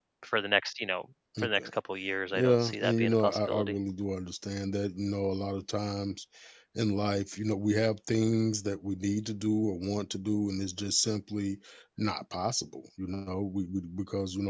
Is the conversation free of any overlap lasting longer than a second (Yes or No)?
No